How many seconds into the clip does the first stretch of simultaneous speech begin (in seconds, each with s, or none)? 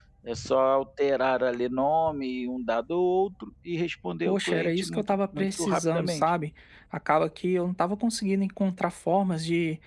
4.2 s